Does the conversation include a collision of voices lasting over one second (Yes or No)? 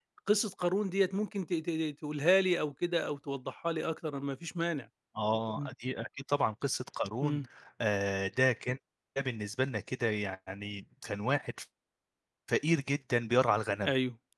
No